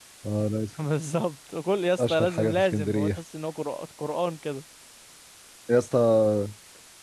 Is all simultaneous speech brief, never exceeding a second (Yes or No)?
No